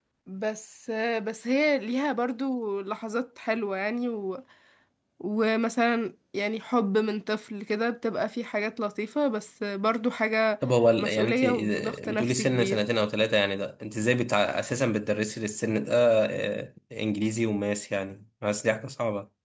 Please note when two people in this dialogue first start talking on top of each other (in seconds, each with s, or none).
11.0 s